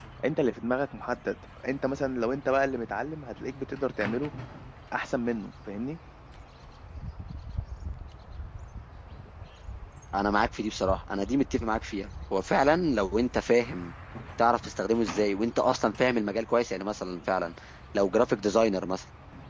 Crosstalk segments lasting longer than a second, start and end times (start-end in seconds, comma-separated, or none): none